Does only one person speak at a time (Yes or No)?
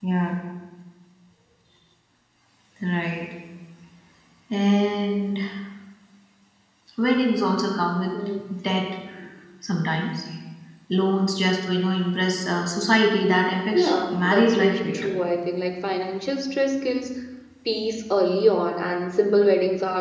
No